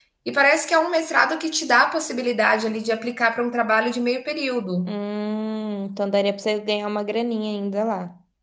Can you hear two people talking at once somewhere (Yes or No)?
No